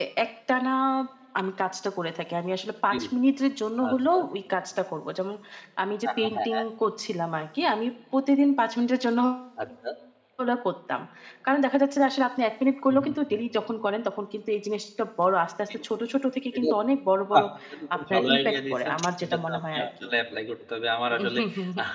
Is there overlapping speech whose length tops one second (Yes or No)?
Yes